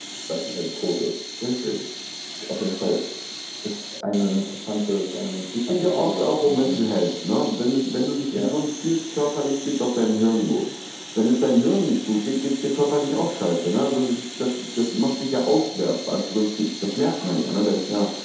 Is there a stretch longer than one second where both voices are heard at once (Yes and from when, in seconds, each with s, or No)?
Yes, from 5.6 s